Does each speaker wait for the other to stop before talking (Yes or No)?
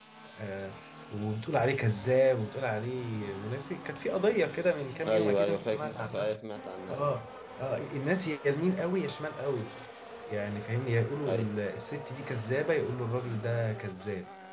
No